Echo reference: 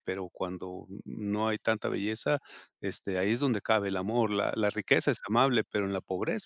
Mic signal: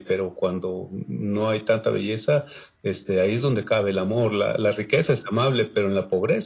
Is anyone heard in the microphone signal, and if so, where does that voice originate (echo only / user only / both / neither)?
echo only